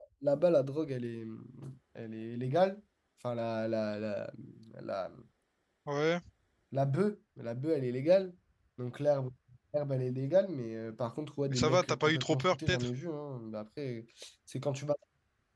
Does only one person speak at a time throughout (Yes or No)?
No